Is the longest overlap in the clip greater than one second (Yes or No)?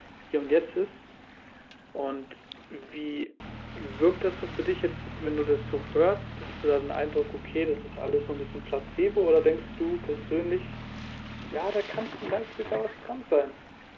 No